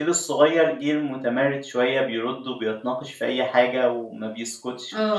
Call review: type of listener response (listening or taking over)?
listening